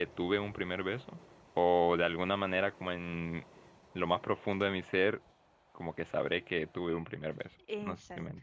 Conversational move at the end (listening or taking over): taking over